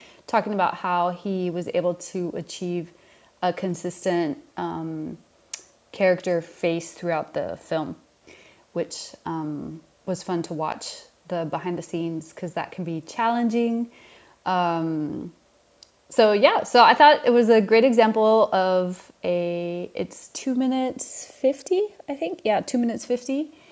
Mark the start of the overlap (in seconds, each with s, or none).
none